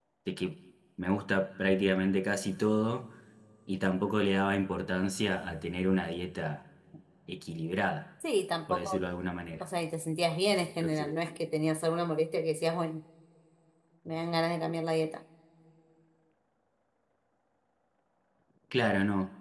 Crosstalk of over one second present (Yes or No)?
No